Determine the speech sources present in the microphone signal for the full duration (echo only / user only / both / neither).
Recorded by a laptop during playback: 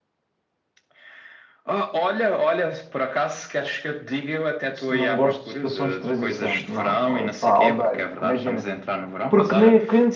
both